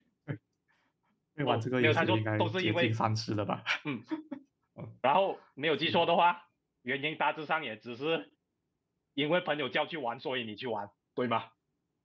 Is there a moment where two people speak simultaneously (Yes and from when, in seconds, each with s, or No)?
Yes, from 1.5 s